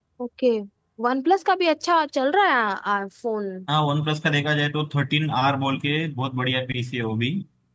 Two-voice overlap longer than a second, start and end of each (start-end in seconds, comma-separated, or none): none